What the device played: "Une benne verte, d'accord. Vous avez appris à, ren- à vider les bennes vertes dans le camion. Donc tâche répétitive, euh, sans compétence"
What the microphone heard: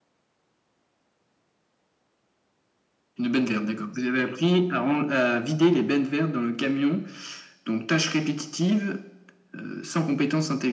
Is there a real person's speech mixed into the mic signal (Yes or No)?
No